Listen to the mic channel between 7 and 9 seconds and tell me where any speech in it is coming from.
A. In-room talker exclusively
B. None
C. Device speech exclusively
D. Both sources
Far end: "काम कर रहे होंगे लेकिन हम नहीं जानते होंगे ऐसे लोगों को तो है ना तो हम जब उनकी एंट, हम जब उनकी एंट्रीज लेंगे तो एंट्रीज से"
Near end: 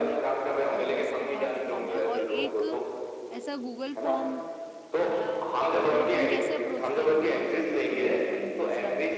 D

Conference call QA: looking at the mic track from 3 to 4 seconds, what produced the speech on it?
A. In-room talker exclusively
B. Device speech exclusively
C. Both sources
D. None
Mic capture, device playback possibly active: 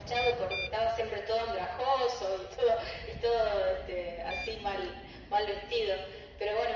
B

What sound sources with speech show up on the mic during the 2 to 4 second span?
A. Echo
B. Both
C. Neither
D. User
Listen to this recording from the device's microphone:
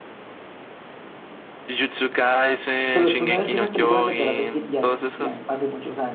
B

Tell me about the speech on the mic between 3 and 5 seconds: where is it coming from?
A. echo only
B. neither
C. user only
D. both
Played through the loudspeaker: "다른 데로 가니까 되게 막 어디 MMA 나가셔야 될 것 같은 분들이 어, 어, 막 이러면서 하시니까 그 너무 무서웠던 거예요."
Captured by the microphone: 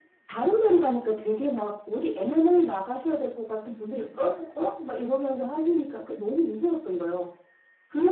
A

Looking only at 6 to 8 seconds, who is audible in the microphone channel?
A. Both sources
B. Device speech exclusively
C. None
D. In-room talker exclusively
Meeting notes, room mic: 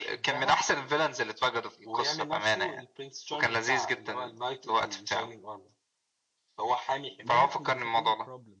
A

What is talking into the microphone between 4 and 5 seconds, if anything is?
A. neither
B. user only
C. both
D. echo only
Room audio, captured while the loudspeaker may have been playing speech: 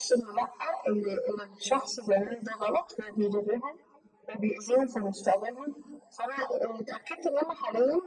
D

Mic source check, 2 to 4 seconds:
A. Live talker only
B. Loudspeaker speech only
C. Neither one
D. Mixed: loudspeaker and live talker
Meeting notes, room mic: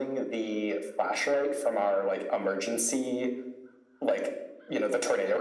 B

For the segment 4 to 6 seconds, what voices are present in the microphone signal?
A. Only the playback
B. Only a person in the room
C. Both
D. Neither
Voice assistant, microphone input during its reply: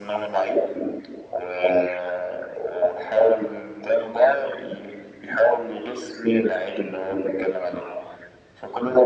A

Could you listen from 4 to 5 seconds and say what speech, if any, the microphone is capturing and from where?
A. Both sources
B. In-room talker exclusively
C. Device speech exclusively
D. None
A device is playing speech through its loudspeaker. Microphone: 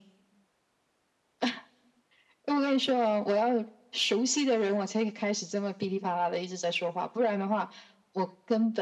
C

